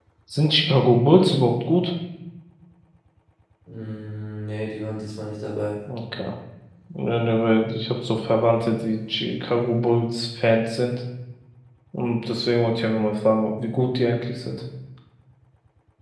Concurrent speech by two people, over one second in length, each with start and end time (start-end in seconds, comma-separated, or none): none